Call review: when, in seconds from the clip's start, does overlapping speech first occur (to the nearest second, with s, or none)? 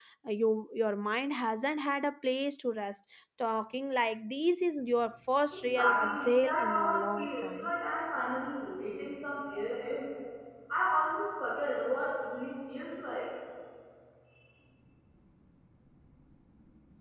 5 s